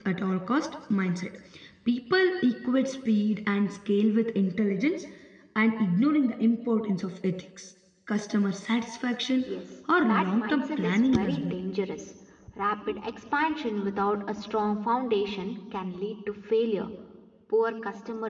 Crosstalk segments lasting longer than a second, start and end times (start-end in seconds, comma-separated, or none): 10.0-11.5